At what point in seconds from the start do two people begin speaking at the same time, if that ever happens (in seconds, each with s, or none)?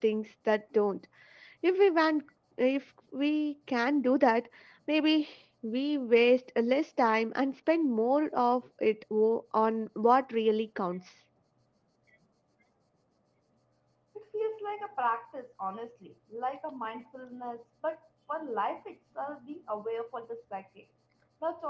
none